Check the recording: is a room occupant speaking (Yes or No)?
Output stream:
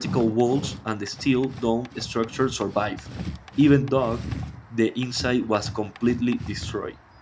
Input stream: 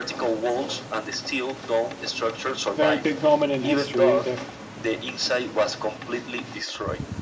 Yes